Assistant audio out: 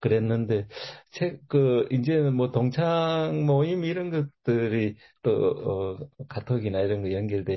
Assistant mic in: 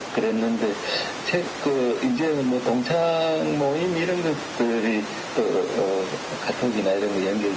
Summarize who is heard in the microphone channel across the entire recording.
echo only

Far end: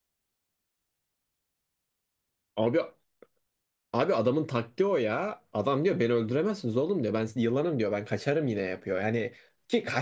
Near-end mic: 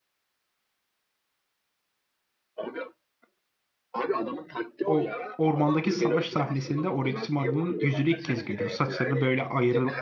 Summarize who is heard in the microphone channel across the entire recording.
both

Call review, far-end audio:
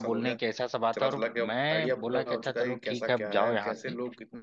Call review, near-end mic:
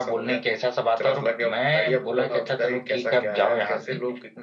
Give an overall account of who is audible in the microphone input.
echo only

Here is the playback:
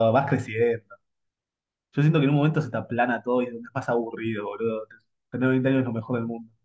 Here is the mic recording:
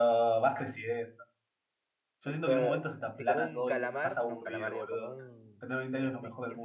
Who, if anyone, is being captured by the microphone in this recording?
both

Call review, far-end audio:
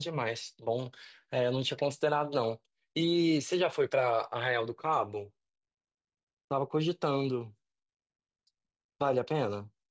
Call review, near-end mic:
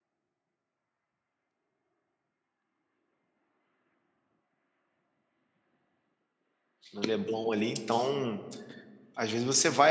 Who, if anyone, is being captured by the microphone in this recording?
user only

